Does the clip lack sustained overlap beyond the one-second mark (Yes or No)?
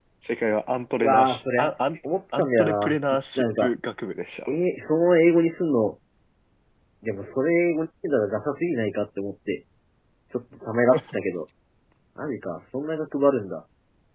No